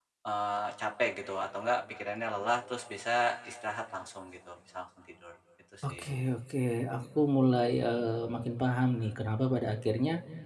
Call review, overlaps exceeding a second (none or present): none